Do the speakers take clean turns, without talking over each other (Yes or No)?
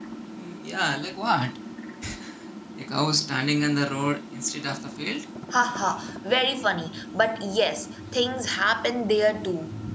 Yes